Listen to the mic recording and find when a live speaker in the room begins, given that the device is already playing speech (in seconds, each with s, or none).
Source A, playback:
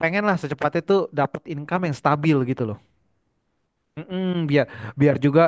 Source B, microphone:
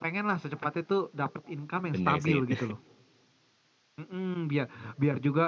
1.9 s